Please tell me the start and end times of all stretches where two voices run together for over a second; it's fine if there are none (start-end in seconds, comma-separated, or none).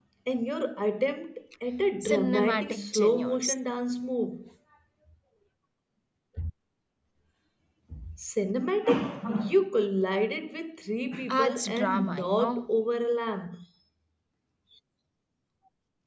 2.0-3.6, 11.3-12.6